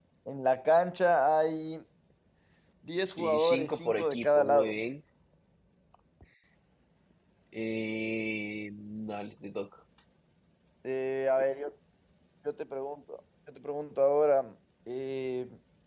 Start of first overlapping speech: 3.2 s

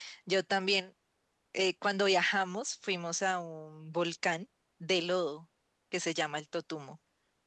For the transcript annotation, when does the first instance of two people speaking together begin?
none

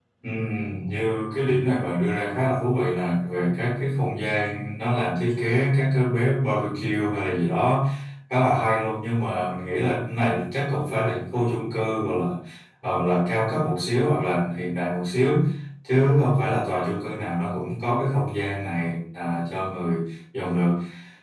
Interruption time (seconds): none

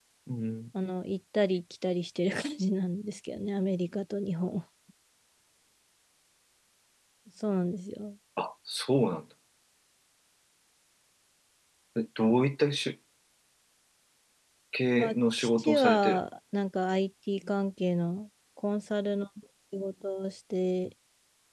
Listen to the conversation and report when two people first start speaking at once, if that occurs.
15.0 s

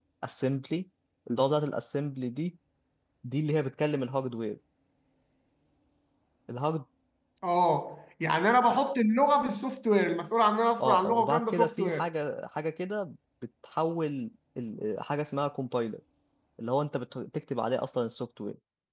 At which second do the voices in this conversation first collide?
10.8 s

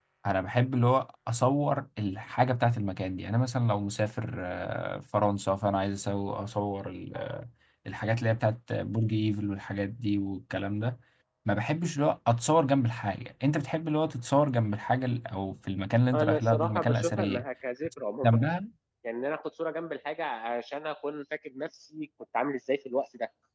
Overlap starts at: 16.1 s

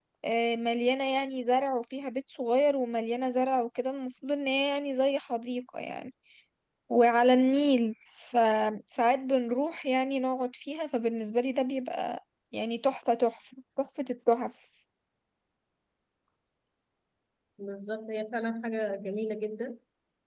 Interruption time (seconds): none

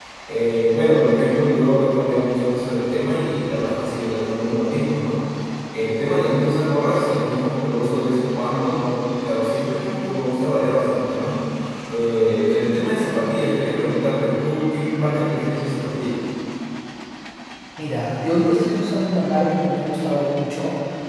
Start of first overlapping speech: none

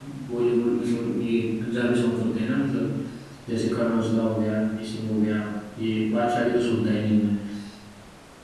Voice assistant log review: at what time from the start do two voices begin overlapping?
none

